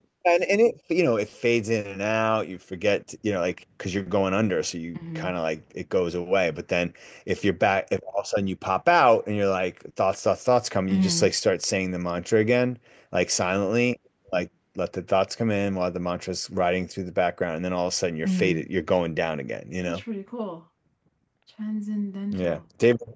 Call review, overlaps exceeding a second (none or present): none